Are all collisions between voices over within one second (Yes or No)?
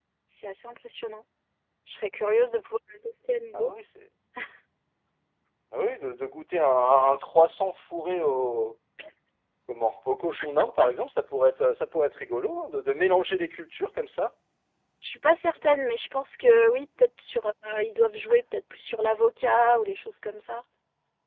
Yes